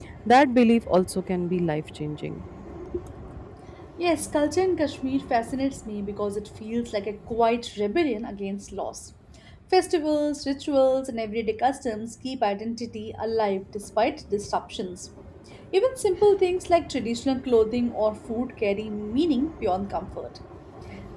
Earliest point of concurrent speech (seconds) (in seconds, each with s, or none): none